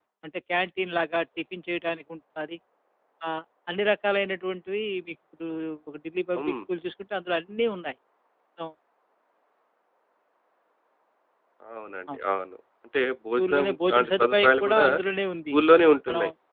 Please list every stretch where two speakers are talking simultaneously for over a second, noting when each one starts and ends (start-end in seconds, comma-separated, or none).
13.4-14.9